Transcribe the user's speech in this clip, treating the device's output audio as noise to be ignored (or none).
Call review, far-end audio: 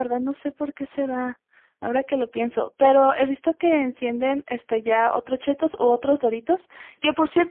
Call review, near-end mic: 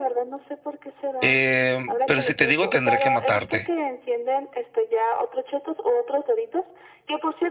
Eh, pero si te digo, tendré que matarte.